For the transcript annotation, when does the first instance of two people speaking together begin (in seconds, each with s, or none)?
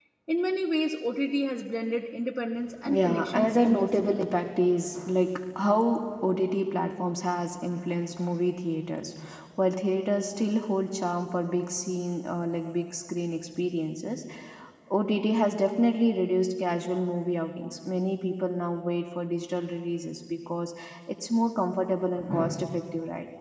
2.8 s